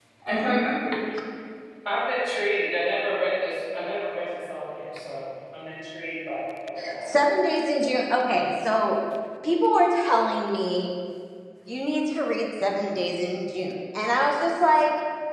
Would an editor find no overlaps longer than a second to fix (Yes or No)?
Yes